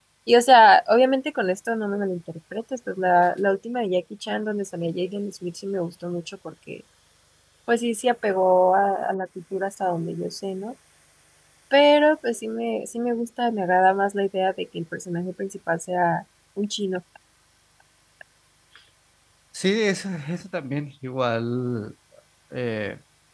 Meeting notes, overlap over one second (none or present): none